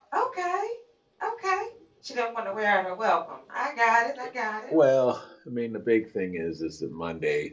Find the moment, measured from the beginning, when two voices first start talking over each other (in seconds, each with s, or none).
none